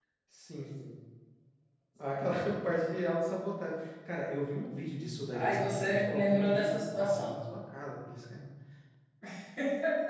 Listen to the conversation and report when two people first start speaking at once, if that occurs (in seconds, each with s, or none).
5.3 s